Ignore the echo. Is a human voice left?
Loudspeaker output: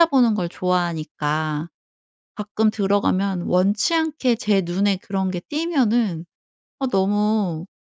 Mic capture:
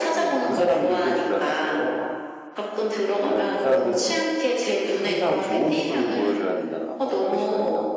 Yes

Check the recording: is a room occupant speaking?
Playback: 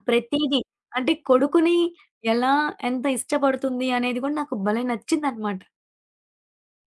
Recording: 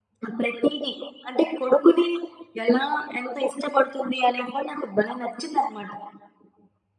No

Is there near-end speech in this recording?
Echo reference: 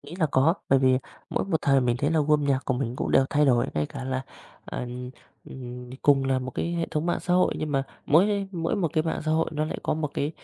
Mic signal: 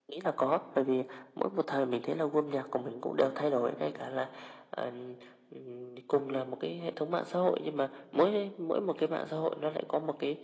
No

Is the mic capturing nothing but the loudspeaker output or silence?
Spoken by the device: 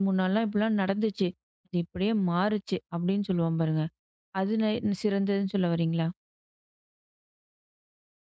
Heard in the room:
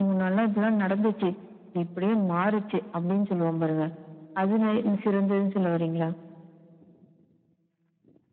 Yes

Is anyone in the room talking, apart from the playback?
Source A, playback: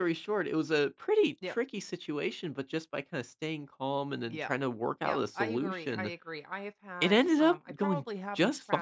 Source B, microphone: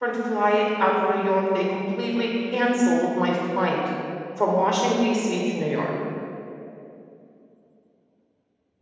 Yes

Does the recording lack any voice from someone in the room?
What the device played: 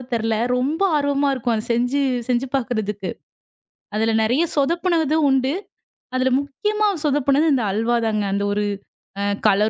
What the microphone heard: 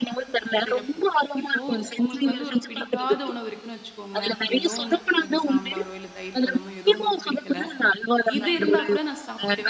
No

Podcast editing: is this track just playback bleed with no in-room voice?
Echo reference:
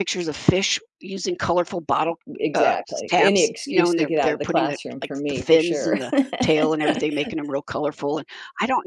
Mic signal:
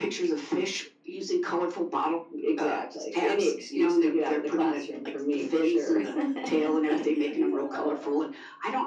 No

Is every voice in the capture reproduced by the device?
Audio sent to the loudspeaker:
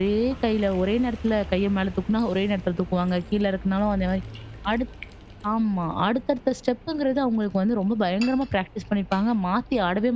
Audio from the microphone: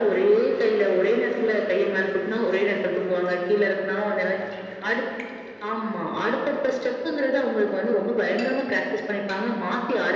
Yes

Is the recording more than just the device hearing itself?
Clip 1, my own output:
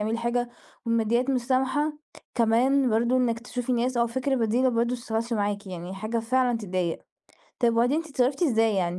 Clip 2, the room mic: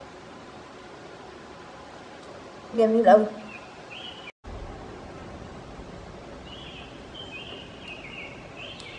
Yes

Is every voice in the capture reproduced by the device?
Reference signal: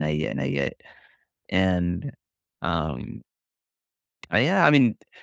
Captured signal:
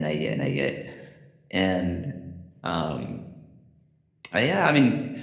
Yes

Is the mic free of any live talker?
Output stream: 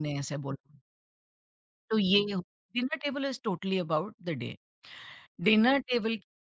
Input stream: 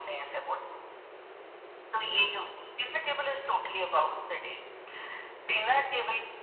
Yes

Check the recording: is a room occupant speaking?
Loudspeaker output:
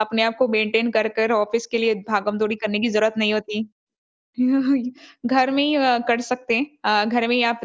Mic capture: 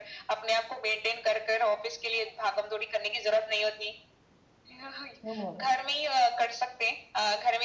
Yes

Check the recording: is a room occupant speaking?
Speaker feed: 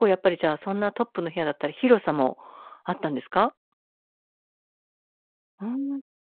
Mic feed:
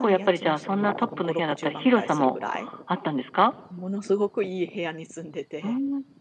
Yes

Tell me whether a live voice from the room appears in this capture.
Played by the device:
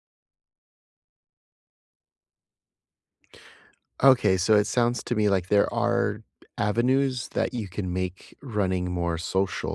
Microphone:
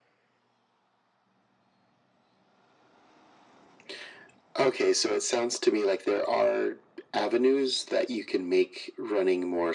No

